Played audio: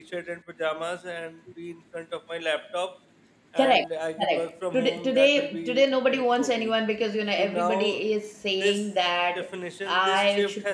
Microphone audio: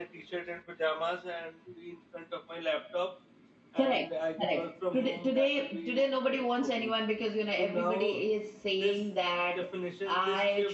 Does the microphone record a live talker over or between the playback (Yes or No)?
No